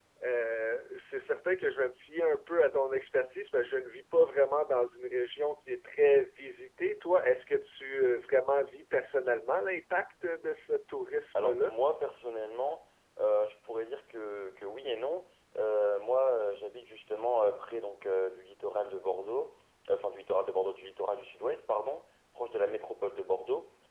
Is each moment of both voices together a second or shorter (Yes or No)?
Yes